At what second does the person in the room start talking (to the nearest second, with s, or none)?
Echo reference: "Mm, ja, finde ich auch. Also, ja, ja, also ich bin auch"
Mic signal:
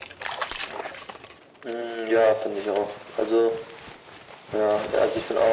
none